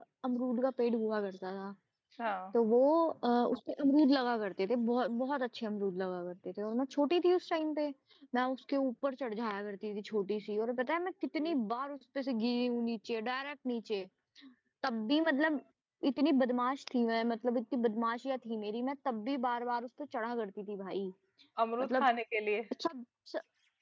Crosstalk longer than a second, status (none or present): none